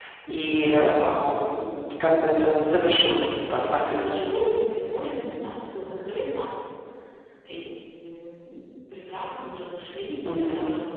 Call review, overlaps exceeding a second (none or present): present